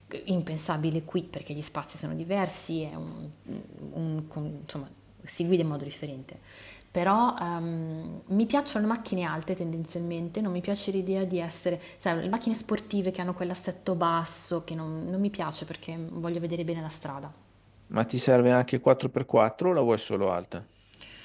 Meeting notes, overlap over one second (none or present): none